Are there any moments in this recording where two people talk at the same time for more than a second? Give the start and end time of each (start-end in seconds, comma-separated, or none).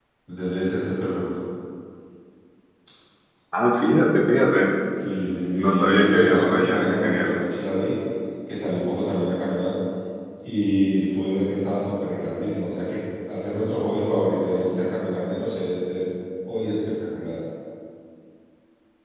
5.5-7.5